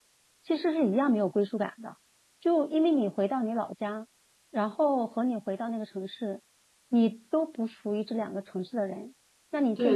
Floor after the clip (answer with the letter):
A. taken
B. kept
B